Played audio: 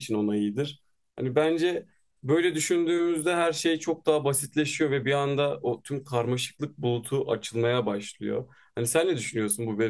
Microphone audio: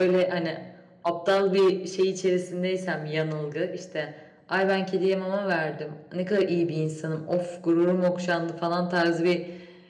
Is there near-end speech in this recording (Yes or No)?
Yes